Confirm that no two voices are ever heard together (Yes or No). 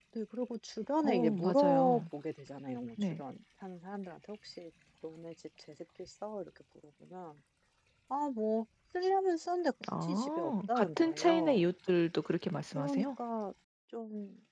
No